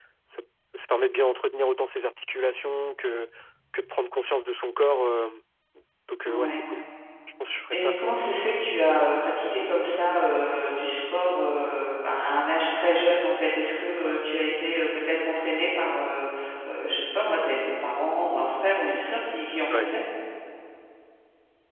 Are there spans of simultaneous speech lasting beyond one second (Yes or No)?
No